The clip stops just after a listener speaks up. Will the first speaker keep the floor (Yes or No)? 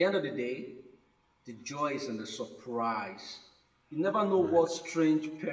Yes